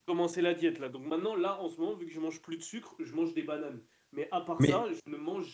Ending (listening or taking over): listening